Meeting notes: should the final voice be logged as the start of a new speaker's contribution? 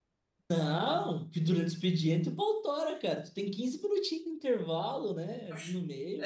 Yes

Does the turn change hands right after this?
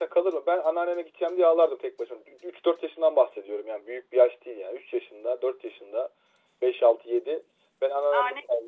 No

